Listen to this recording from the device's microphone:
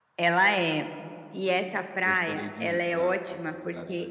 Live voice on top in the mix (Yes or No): No